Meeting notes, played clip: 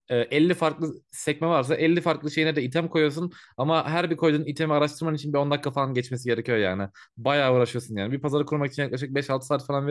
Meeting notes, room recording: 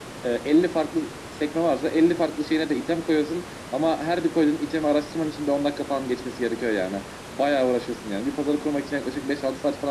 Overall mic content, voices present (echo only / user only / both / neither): echo only